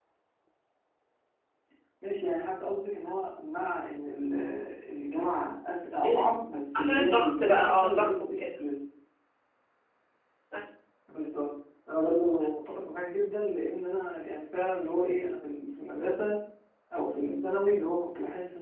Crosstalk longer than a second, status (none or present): present